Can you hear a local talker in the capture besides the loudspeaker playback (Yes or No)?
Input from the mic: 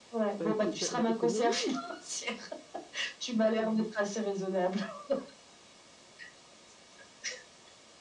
Yes